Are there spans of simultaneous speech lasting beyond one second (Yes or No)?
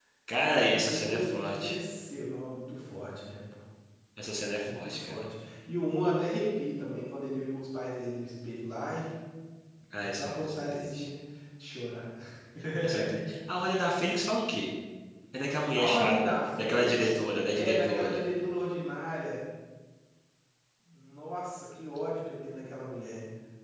Yes